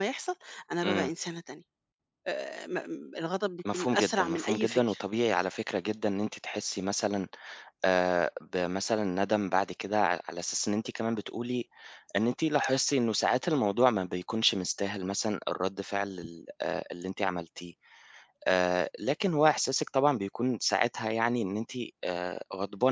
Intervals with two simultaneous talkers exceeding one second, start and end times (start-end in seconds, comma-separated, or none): 3.7-5.0